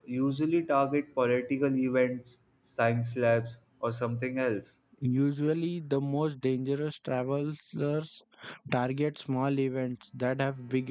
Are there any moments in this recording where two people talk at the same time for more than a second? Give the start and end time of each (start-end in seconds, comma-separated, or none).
none